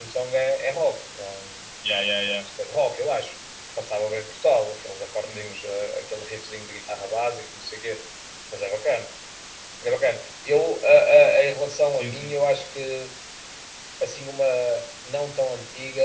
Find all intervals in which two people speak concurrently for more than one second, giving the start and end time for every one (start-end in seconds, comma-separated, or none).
none